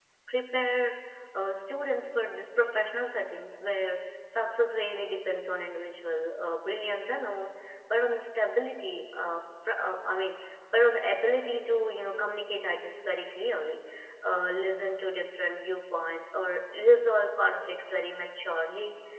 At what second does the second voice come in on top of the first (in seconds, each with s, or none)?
none